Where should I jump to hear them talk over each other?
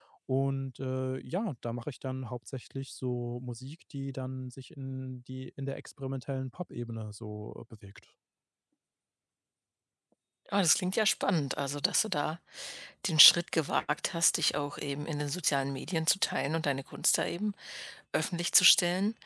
none

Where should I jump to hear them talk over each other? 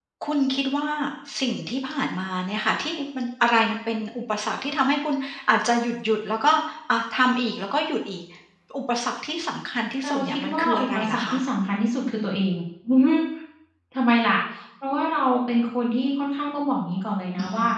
10.0 s

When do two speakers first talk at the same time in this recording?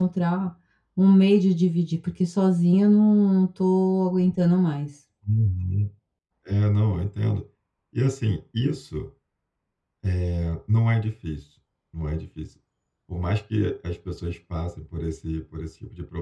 none

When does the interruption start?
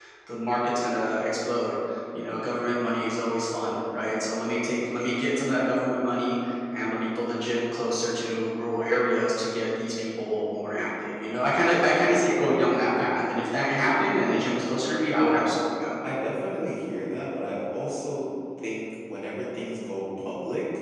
none

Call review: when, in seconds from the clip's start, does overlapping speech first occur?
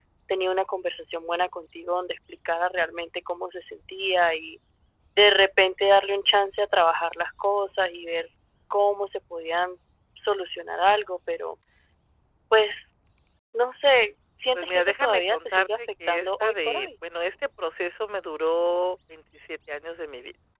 14.5 s

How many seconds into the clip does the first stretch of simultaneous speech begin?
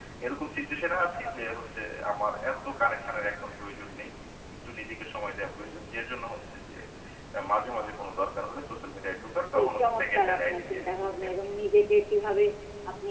9.4 s

